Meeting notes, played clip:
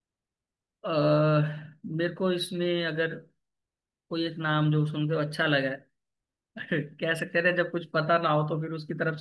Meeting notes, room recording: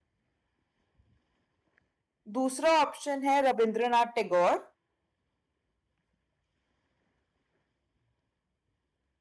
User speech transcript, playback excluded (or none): दूसरा ऑप्शन है रविंद्रनाथ टैगोर